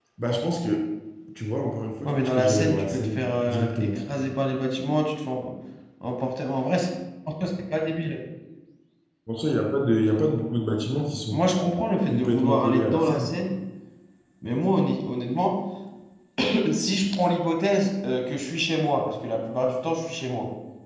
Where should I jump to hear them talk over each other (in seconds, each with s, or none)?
2.0 s